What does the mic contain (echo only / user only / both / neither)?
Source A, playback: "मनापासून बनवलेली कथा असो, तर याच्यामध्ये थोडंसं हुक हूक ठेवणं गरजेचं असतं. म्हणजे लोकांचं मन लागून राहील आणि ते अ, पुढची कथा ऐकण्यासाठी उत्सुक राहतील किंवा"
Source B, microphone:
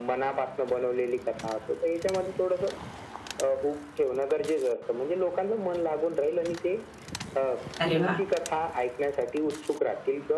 both